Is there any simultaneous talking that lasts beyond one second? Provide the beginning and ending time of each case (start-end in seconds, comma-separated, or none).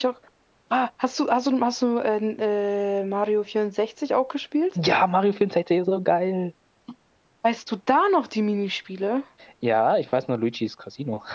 none